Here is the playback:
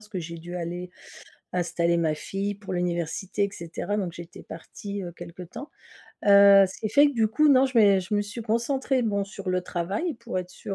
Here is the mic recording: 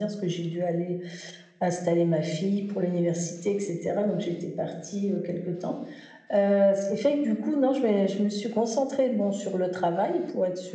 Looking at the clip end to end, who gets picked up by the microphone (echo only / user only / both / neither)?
echo only